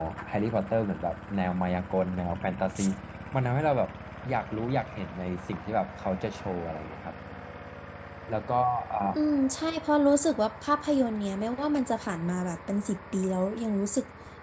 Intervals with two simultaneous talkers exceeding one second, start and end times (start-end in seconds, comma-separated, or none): none